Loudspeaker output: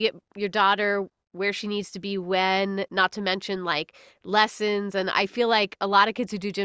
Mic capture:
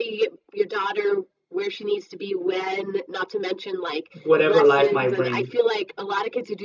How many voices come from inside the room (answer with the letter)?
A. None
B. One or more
B